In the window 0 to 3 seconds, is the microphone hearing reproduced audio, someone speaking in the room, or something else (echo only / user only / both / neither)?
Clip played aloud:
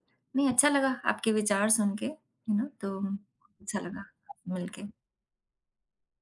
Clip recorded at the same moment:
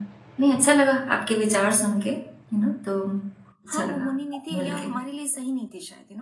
echo only